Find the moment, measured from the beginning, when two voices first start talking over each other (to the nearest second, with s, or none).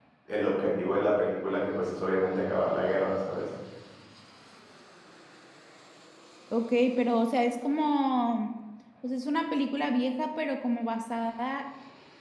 none